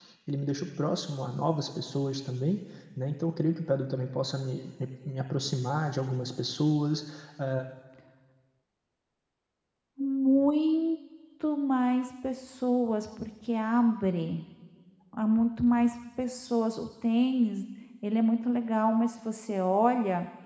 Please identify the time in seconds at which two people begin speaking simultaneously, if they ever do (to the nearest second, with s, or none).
none